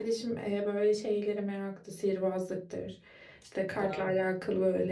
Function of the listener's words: listening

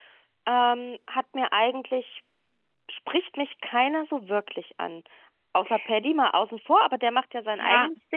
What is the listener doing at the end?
taking over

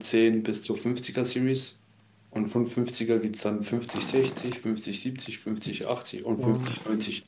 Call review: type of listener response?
listening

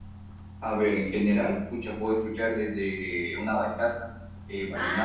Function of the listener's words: taking over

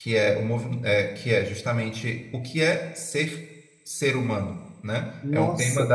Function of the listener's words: listening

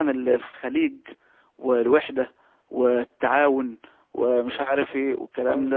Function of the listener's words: taking over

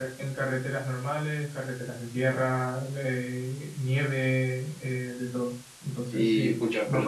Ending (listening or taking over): taking over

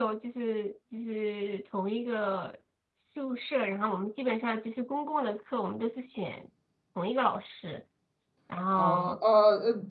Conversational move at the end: taking over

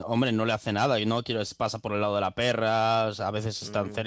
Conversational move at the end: taking over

